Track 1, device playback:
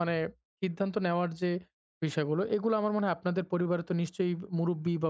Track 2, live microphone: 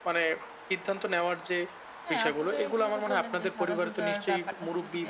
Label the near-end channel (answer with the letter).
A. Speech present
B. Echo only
A